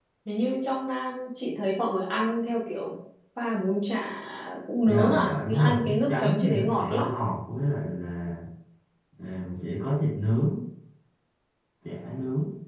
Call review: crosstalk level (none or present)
present